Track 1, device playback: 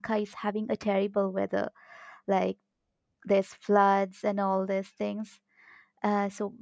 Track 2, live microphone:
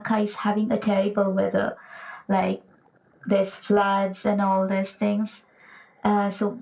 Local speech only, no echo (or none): none